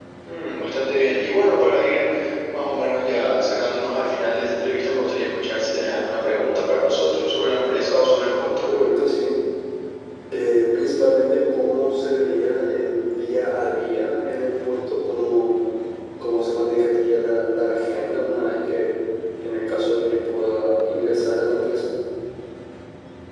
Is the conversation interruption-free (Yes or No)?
Yes